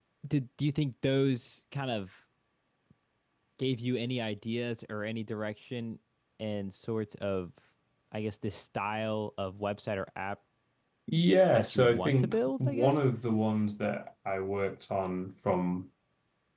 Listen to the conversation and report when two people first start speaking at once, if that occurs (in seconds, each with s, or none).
11.5 s